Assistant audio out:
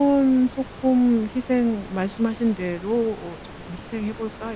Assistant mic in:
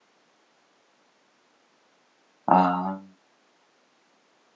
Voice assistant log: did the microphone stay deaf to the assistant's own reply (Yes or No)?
Yes